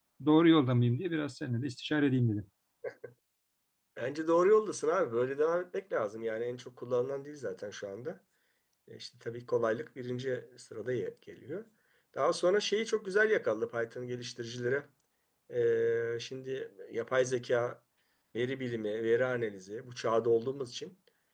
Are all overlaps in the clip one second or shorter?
Yes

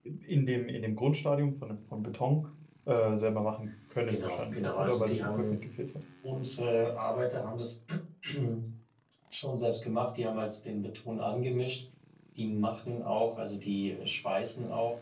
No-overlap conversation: No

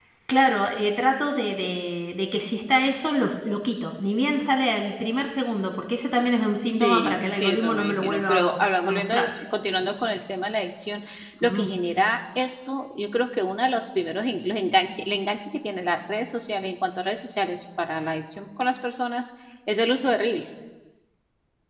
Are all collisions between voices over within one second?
No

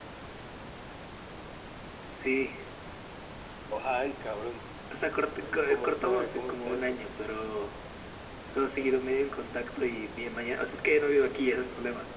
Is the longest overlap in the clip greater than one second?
Yes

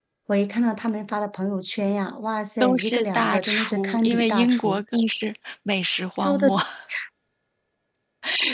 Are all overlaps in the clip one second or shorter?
No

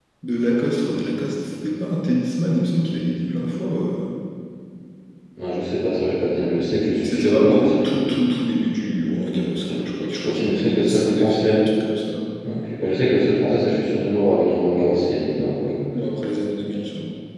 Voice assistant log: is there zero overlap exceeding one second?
No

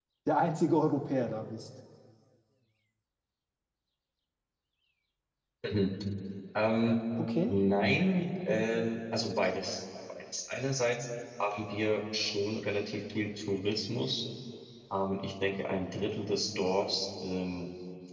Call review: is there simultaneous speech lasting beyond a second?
No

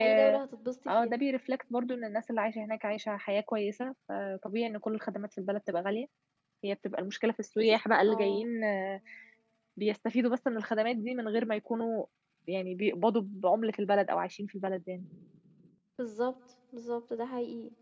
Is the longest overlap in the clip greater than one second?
No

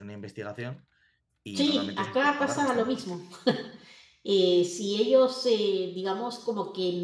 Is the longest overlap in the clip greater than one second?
Yes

